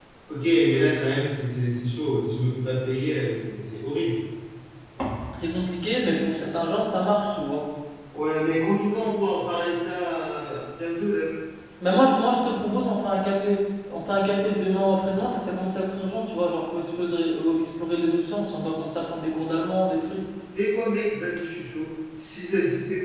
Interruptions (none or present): none